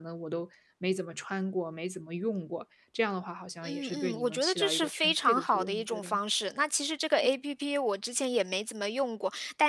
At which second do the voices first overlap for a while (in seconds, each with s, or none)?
3.6 s